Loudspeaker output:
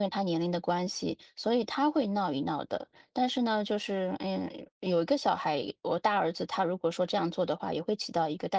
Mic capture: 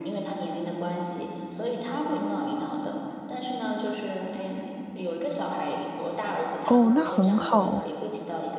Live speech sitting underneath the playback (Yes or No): No